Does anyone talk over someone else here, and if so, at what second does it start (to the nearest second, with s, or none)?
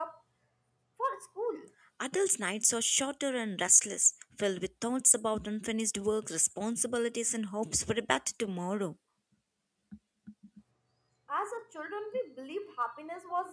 none